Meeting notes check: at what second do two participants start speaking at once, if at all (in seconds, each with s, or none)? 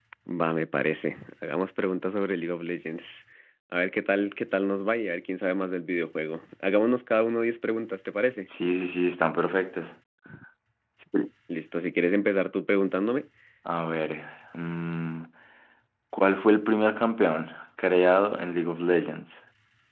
none